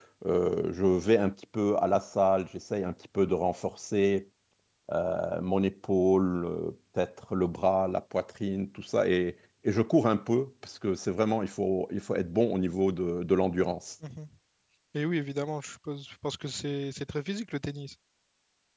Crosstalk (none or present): none